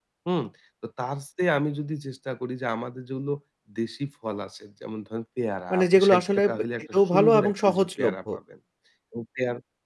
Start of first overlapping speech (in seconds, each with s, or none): 5.7 s